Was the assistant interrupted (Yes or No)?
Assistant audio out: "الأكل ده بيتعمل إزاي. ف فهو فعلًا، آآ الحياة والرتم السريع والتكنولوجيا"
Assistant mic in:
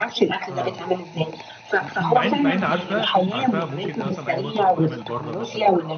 Yes